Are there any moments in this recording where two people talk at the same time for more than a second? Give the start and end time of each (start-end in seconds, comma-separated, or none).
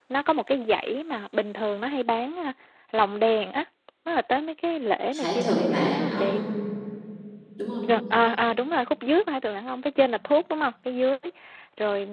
5.1-6.4